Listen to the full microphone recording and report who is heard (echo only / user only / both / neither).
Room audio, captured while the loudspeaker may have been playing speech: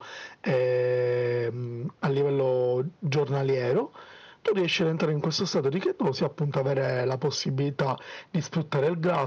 echo only